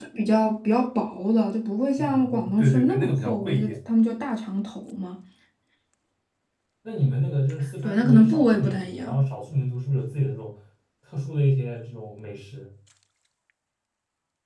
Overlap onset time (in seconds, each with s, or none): 2.0 s